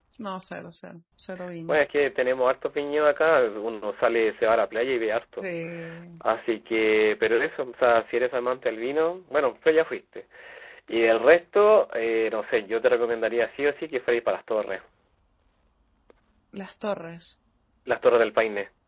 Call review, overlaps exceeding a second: none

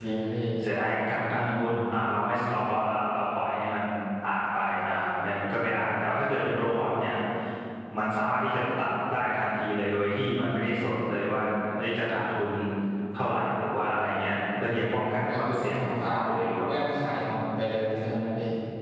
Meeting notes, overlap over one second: present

